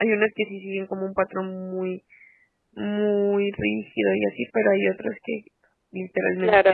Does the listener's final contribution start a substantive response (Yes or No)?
No